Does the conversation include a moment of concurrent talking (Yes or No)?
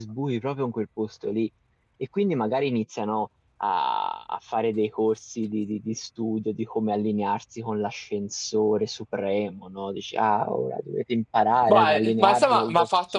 Yes